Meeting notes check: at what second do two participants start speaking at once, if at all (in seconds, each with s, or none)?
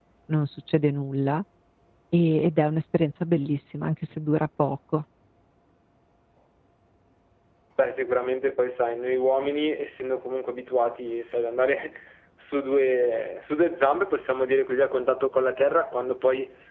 none